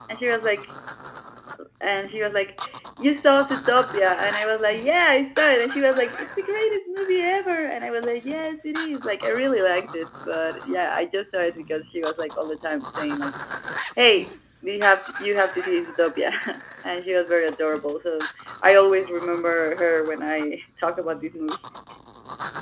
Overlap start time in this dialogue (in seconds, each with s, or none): none